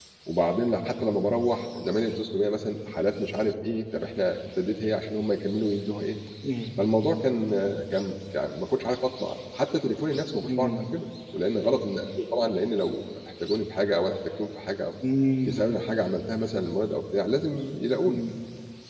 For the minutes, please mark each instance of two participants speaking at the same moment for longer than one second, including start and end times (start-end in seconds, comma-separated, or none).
none